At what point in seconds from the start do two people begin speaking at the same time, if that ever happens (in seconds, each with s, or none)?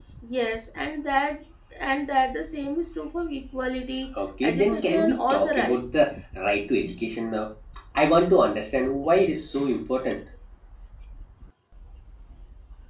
4.4 s